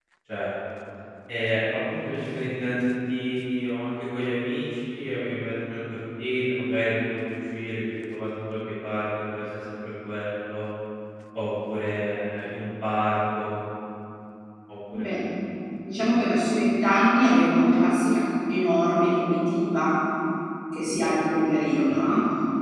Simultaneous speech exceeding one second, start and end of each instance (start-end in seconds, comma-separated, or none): none